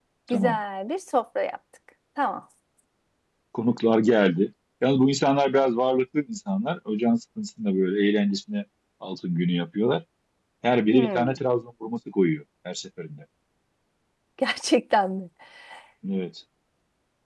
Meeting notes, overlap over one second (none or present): none